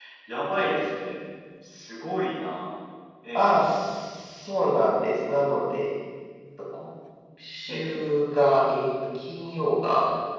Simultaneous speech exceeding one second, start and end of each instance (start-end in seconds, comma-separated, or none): none